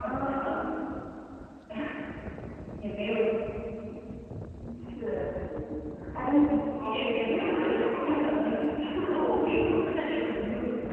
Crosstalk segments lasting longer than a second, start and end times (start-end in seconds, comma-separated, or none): 6.5-8.5